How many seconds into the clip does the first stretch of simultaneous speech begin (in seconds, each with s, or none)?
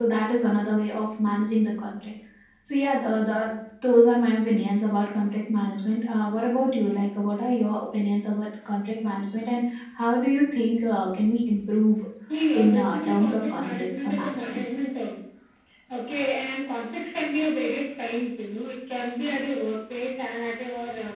12.5 s